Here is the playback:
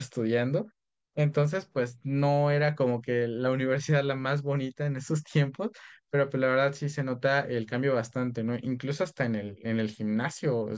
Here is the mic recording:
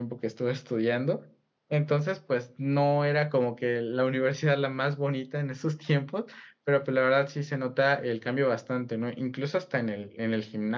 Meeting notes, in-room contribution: none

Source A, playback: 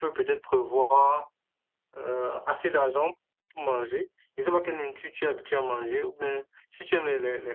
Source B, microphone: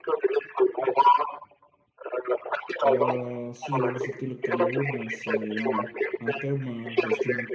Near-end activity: present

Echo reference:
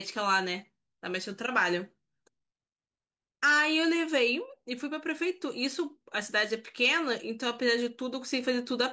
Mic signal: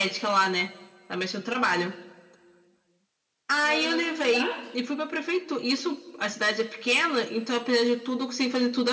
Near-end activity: present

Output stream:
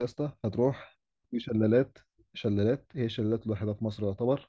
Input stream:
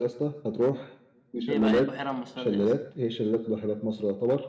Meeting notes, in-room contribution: present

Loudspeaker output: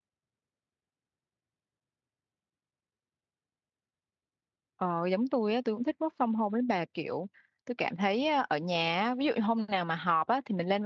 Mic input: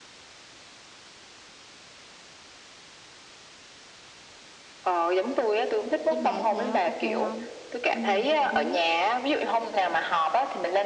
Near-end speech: present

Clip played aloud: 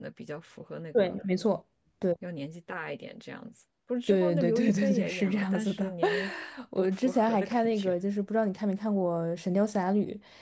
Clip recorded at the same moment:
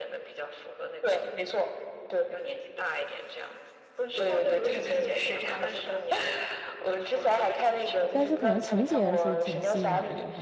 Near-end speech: present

